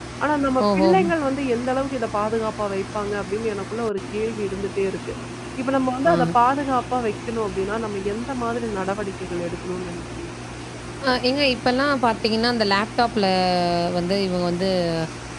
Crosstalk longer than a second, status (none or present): none